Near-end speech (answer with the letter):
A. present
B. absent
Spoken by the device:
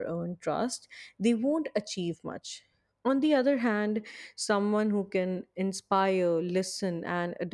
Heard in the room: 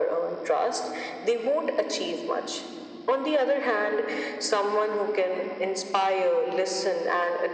B